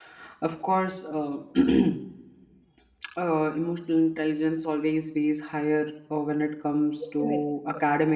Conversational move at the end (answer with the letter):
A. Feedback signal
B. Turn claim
A